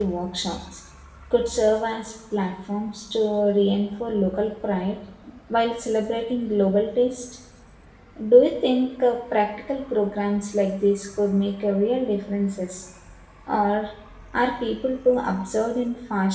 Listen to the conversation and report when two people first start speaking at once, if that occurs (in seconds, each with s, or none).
none